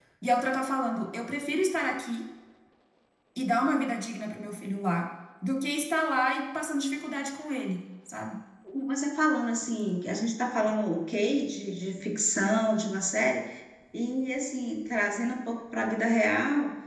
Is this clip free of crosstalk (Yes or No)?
Yes